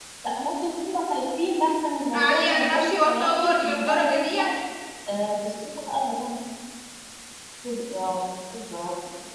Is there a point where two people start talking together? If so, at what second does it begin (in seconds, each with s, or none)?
2.1 s